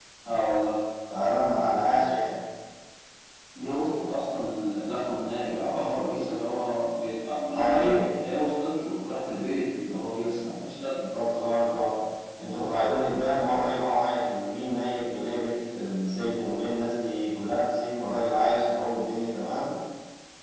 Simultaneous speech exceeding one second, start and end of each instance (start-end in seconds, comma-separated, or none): none